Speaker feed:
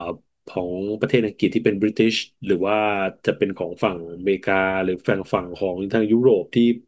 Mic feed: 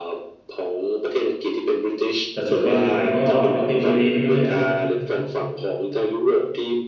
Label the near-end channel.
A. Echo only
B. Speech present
B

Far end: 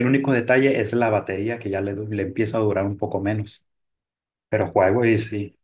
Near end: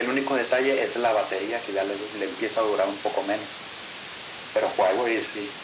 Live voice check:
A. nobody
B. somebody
A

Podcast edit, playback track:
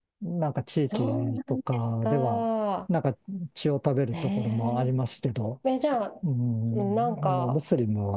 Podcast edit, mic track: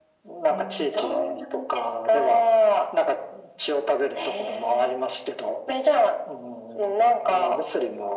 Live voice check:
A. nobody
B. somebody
B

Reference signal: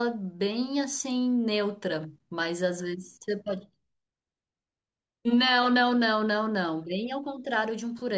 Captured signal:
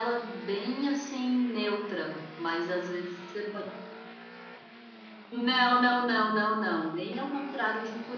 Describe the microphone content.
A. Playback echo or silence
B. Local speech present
A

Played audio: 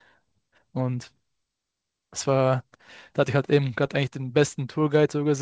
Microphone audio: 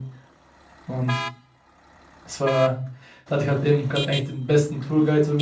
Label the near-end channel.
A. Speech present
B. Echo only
B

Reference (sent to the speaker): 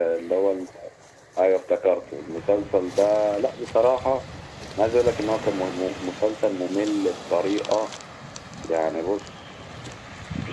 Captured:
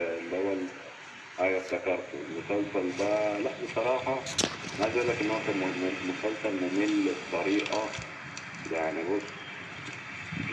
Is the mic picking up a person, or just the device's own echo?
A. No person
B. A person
A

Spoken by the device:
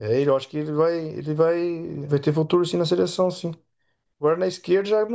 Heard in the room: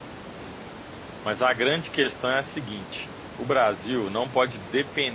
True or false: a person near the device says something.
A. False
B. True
B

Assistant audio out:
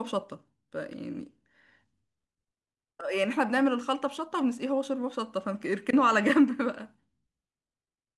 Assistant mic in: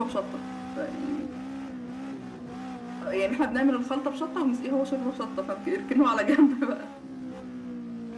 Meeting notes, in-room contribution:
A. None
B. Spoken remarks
A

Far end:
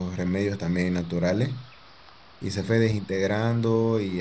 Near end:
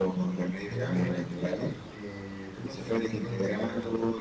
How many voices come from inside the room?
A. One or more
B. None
A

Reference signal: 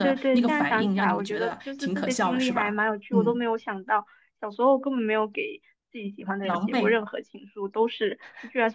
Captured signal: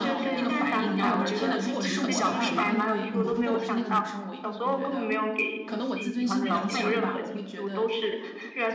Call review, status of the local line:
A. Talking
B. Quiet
A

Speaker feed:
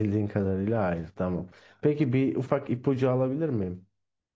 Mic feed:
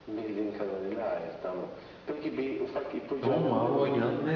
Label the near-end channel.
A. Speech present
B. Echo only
A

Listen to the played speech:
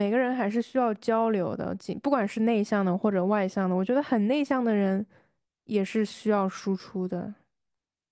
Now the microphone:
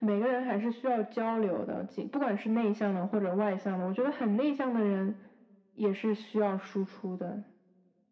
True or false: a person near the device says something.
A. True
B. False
B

